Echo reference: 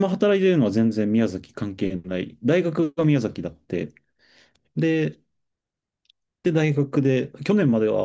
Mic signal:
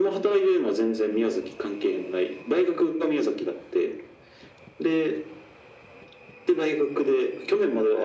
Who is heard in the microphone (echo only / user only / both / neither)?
echo only